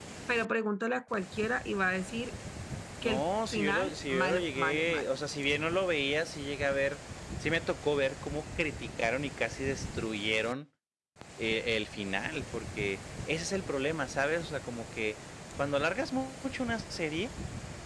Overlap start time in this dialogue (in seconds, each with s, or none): 3.0 s